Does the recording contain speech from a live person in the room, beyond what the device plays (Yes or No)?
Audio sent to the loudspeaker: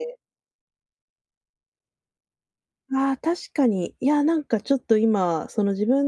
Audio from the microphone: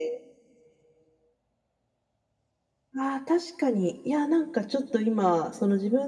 No